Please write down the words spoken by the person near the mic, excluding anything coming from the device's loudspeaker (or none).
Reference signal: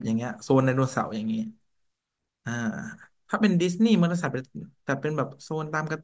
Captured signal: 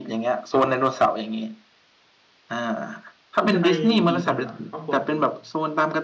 คุณจะไปกี่คนเหรอครอบครัวคุณ